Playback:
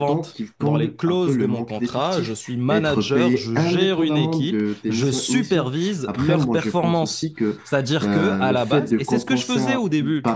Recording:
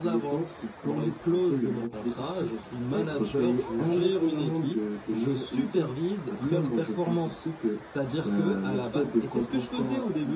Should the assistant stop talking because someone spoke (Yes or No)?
No